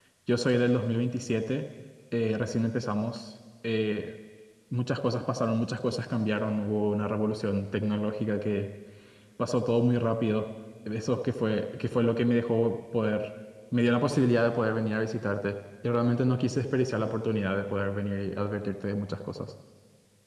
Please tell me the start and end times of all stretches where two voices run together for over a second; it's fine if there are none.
none

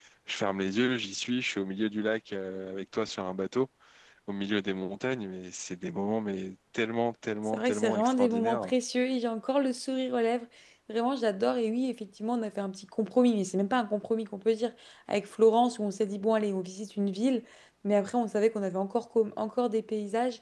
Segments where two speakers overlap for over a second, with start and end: 7.5-8.7

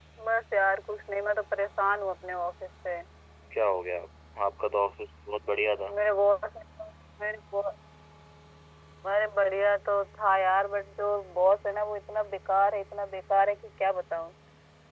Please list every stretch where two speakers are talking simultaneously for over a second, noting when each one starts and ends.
none

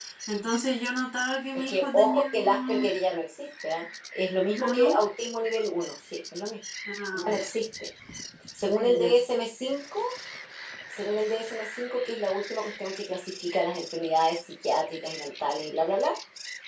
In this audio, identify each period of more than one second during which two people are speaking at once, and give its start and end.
1.7-2.9

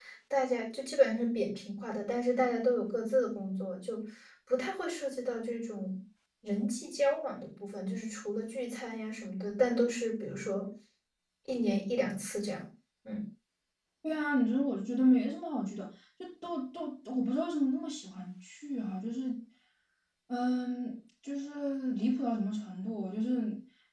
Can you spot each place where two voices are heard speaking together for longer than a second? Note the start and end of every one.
none

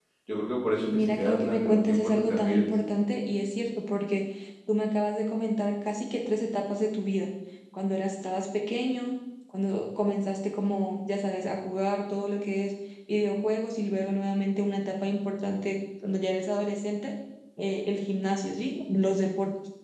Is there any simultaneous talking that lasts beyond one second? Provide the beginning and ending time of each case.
0.8-2.7

